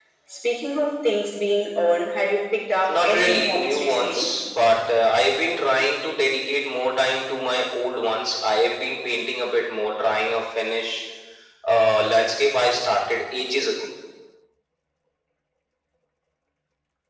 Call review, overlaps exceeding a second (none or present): present